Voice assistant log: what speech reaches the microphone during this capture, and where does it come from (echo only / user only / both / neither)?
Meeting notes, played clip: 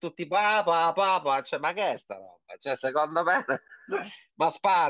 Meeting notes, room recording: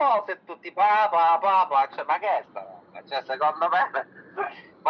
echo only